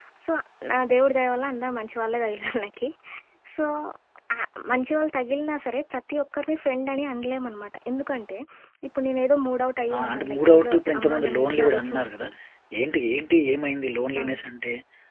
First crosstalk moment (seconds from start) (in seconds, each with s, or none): 9.9 s